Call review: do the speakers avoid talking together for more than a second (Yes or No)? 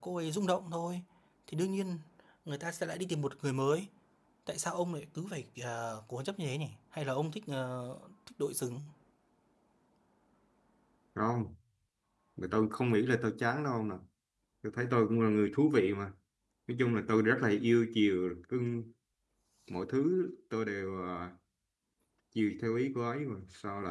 Yes